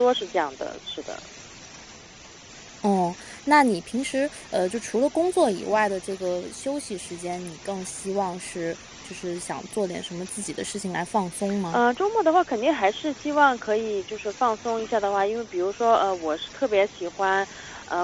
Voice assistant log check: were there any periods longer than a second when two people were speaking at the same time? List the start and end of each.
none

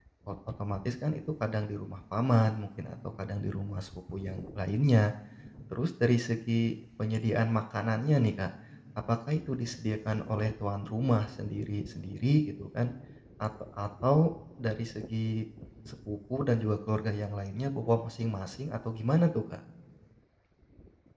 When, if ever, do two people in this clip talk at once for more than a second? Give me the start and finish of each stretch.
none

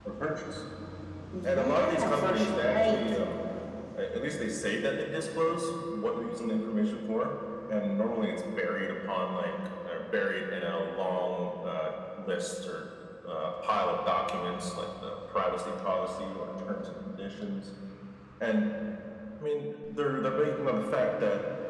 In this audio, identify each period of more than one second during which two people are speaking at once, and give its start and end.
1.4-3.2

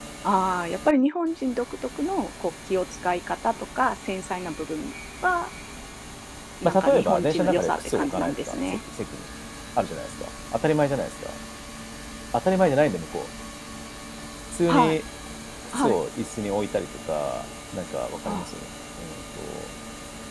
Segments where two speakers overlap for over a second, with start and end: 6.6-8.8

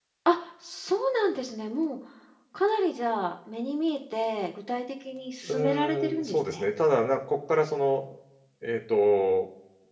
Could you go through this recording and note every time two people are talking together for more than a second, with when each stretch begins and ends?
5.5-6.7

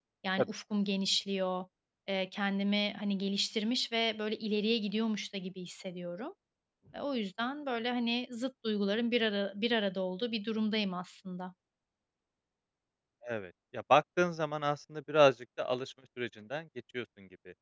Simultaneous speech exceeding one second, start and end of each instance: none

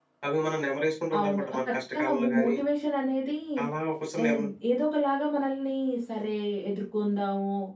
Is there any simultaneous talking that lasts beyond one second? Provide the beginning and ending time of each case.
1.2-2.6

